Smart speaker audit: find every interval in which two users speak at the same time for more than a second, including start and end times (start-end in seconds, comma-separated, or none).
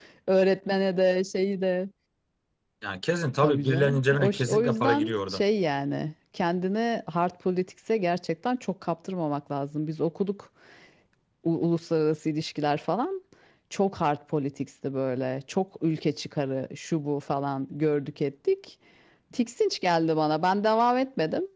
3.4-5.4